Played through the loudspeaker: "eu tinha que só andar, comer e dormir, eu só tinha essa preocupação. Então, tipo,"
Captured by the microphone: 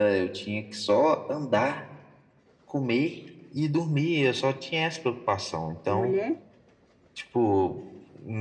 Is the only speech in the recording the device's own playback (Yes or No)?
No